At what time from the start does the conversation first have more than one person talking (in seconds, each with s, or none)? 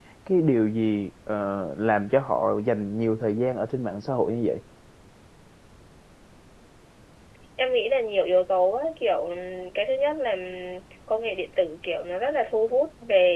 none